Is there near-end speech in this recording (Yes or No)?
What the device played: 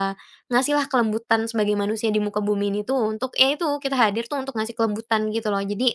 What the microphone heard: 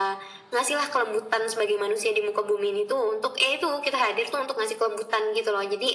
No